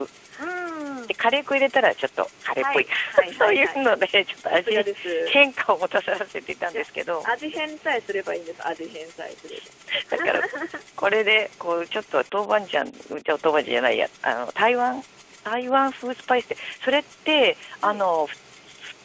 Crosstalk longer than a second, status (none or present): present